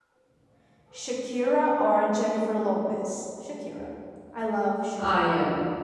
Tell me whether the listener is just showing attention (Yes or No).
No